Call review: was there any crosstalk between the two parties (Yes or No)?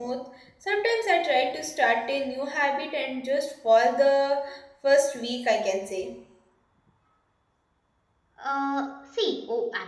No